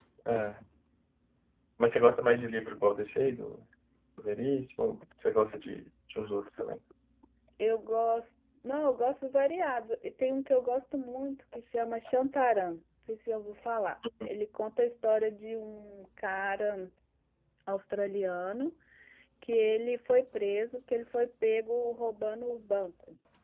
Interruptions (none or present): none